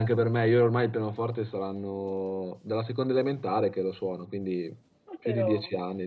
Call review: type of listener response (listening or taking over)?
listening